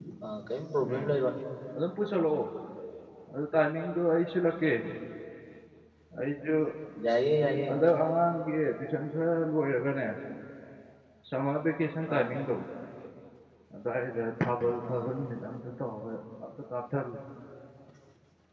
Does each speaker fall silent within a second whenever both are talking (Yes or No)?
Yes